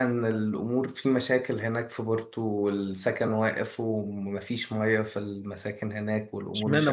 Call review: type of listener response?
taking over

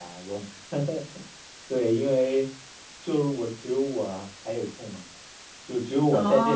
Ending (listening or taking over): listening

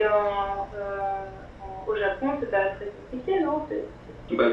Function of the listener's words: taking over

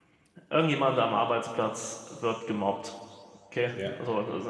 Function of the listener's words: listening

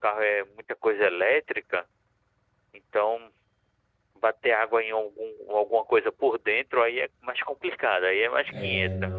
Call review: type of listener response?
taking over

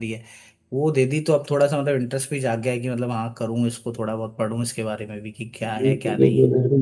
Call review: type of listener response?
taking over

